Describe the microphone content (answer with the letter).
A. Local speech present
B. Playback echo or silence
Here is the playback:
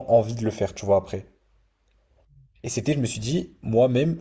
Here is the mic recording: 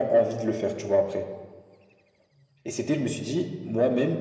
B